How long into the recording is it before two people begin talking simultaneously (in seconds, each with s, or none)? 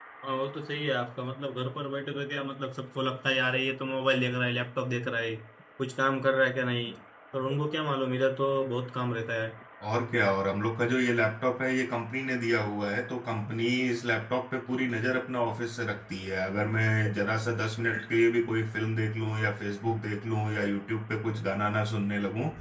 none